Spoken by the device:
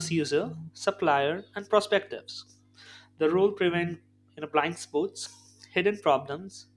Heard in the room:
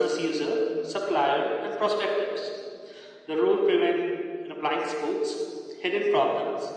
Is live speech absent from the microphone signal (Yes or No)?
Yes